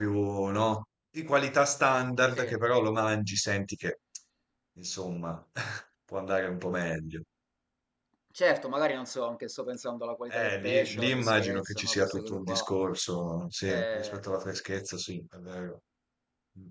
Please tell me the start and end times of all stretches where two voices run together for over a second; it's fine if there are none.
10.3-12.7

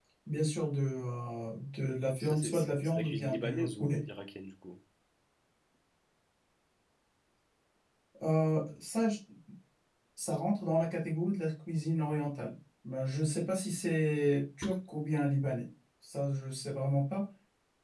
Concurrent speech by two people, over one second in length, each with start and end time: 2.3-4.0

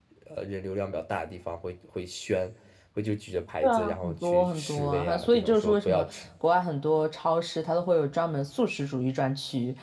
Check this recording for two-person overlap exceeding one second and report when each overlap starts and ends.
3.6-6.1

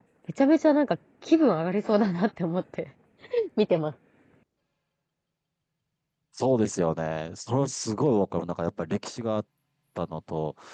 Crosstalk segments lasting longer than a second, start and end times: none

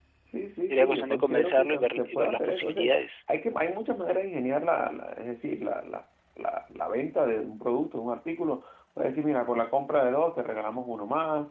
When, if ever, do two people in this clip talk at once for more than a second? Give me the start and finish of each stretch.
0.7-2.9

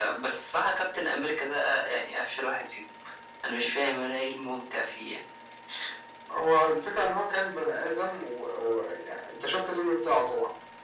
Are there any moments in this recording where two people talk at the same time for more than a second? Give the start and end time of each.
none

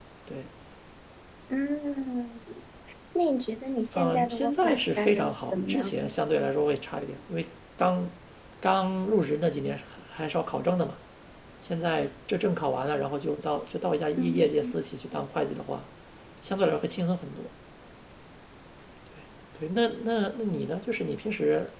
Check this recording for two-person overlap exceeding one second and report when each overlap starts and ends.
3.9-6.0

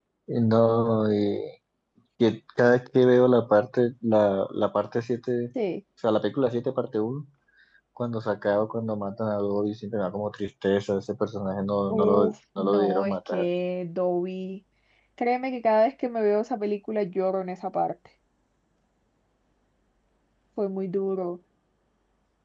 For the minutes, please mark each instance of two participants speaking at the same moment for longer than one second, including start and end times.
11.9-13.5

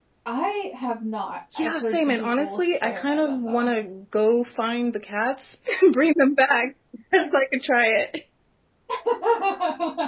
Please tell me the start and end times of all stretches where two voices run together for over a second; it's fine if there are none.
1.6-3.7

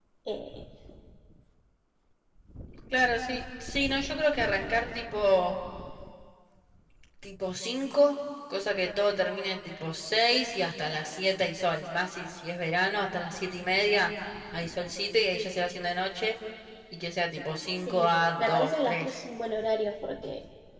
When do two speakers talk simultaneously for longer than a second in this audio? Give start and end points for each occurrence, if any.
17.8-19.2

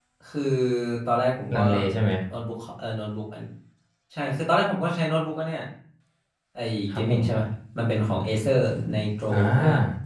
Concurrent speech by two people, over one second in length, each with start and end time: none

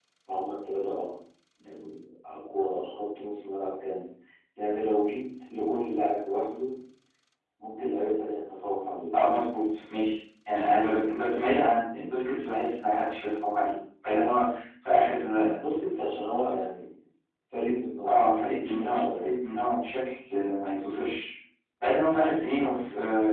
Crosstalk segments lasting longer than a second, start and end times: 18.1-19.3

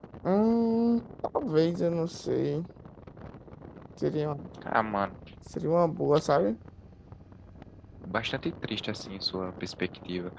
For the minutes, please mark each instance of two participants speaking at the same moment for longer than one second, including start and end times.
none

